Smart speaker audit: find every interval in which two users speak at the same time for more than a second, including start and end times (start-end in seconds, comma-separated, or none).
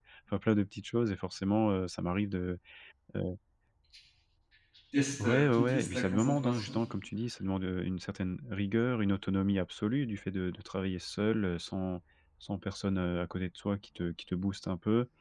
5.2-6.8